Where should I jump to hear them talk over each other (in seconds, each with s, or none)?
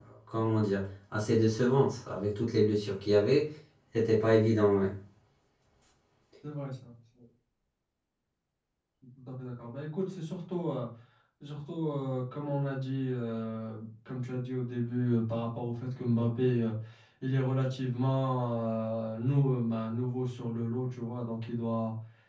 none